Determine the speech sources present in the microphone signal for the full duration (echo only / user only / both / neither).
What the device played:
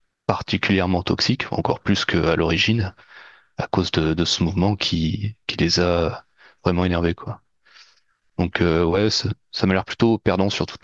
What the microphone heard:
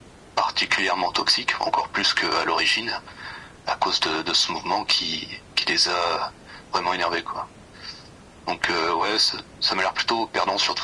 echo only